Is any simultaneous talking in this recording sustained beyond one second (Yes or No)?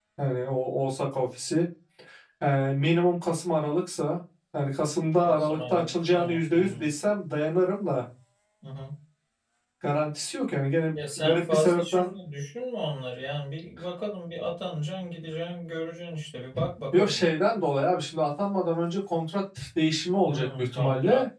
Yes